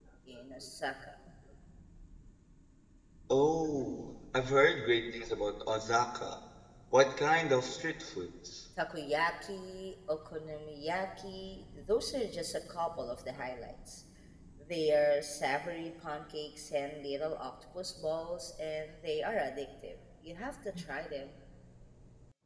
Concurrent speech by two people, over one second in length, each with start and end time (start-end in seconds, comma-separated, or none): none